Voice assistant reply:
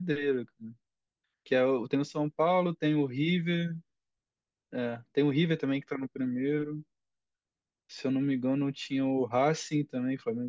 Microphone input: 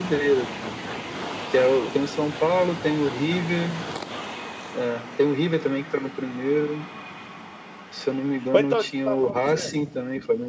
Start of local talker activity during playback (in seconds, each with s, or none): 8.5 s